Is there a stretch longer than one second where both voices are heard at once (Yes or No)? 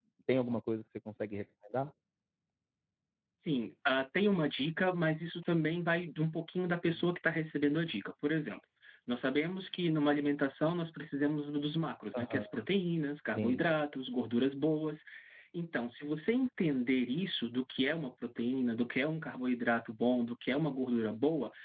No